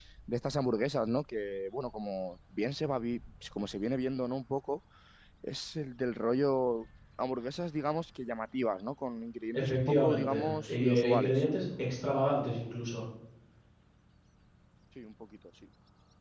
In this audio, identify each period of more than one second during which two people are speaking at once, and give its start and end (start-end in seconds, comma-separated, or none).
9.5-11.4